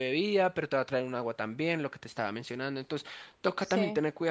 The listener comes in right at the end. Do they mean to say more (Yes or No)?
No